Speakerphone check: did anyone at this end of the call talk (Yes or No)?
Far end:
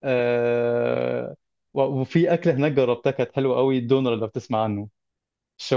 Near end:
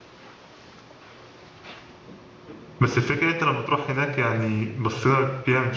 Yes